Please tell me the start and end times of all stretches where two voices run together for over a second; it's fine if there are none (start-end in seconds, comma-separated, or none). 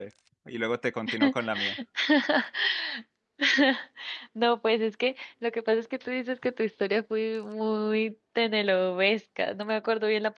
none